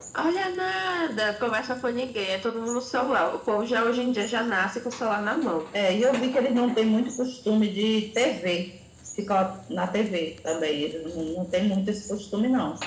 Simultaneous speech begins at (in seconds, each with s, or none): none